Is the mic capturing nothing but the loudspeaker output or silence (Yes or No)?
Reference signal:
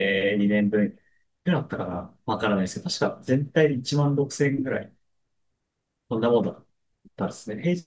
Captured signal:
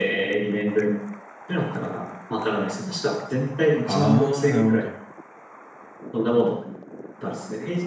No